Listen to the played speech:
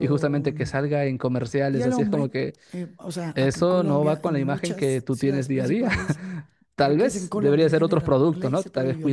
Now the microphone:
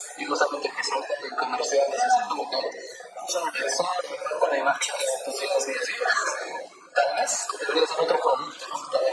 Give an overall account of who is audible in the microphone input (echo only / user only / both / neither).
echo only